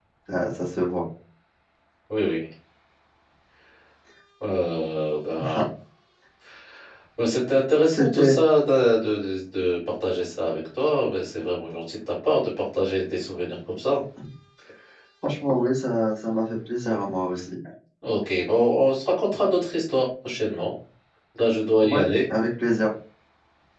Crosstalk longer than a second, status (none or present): none